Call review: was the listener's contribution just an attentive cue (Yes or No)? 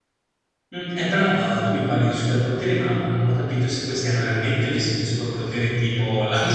No